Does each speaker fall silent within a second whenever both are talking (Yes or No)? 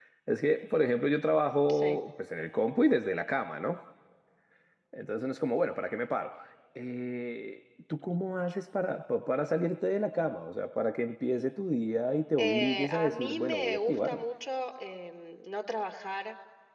No